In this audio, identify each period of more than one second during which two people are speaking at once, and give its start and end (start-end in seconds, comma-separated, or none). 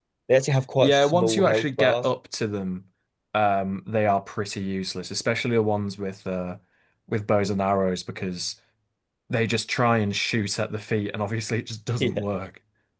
0.8-2.1